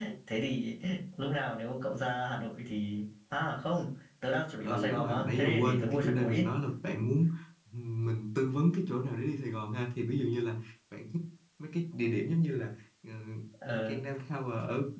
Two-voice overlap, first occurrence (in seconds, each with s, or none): 4.6 s